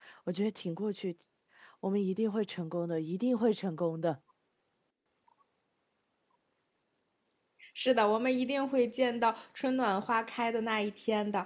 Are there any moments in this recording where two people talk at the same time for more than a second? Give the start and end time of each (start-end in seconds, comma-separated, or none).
none